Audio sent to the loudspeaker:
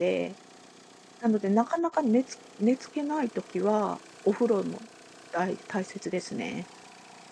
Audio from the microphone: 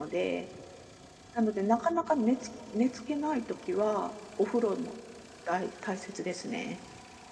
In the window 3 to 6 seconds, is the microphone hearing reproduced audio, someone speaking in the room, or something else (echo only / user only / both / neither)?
echo only